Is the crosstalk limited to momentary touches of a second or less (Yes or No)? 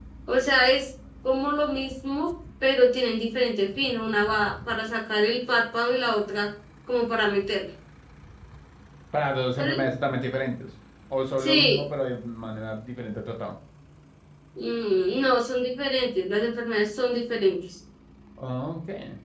Yes